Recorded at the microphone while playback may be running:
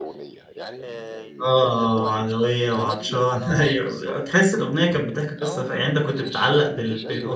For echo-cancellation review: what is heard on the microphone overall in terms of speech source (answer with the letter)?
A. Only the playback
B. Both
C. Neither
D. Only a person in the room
B